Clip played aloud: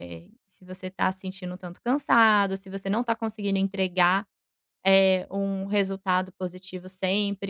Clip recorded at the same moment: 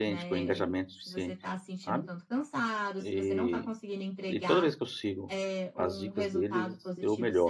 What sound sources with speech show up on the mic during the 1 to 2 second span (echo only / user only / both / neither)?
both